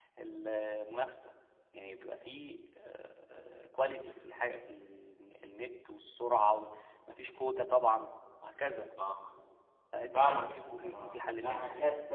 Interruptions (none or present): present